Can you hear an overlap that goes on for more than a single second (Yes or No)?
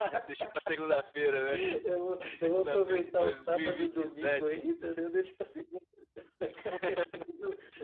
Yes